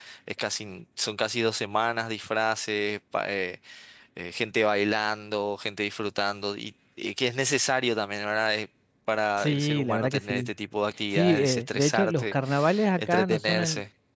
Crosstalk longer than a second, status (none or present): present